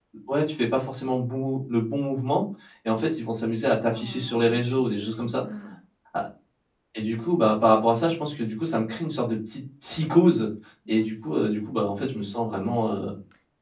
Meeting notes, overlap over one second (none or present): present